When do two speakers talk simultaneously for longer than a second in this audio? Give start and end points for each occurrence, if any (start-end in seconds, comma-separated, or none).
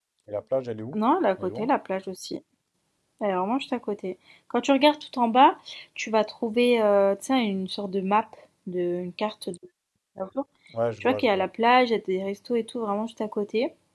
none